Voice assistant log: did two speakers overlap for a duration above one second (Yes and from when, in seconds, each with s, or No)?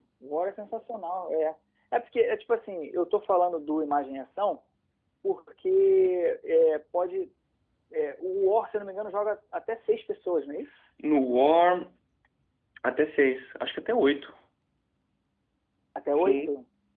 No